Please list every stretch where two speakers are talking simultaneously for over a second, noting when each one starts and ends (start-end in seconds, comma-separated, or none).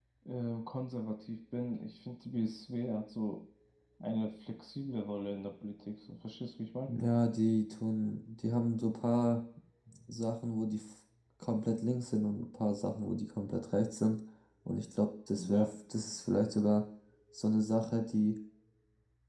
none